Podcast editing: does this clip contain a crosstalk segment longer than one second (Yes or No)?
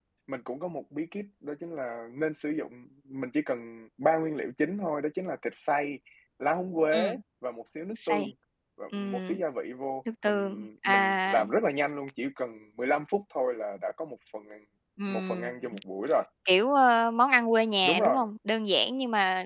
Yes